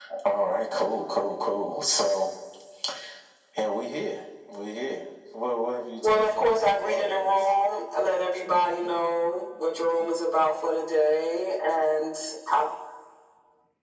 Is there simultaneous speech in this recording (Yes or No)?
Yes